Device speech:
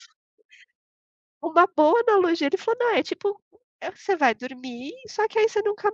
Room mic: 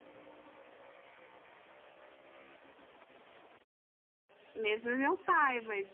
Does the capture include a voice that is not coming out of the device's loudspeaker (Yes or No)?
Yes